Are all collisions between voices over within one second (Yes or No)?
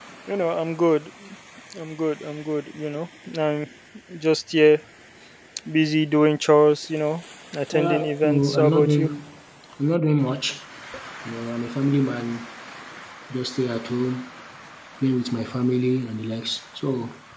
No